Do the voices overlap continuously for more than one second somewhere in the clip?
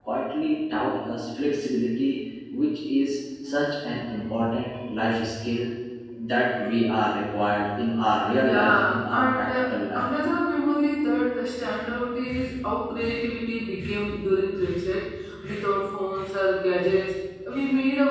Yes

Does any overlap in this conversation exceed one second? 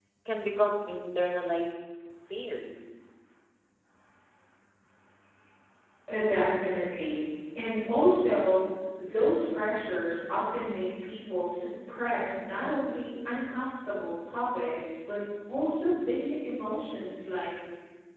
No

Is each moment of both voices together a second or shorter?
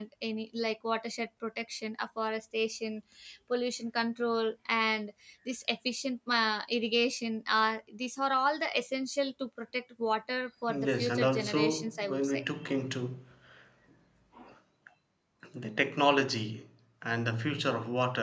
No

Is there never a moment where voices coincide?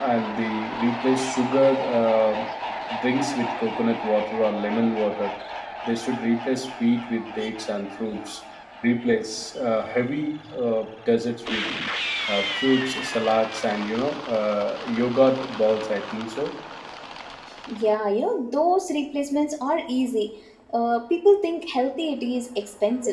Yes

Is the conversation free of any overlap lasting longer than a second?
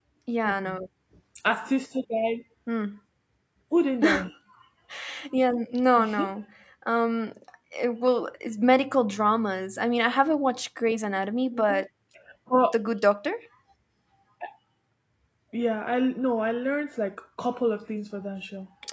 Yes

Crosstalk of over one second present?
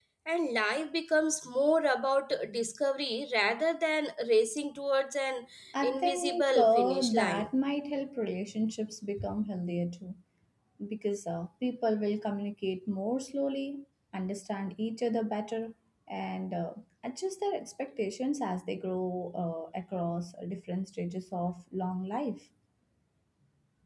Yes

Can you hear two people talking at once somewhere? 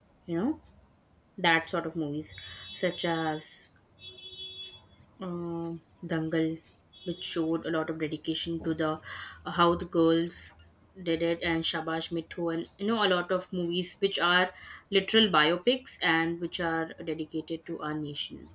No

